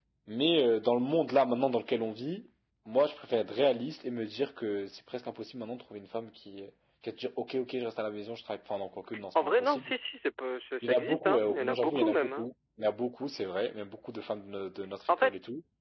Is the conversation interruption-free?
No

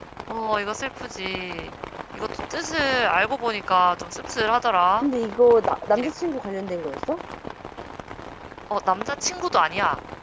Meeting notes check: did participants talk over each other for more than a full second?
No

